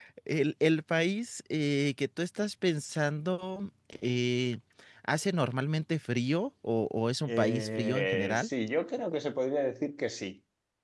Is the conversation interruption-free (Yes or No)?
No